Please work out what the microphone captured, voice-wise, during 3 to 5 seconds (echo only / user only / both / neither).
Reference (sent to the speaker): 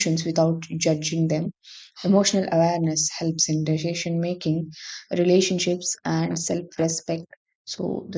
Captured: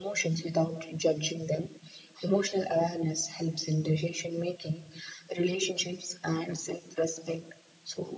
echo only